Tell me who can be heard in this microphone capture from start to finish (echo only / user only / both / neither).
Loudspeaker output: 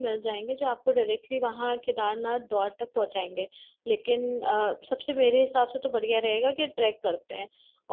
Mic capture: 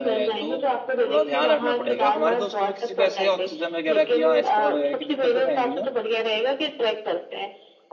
both